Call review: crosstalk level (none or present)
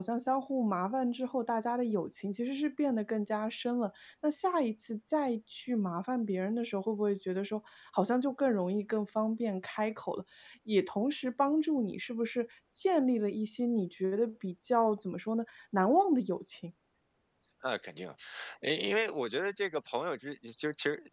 none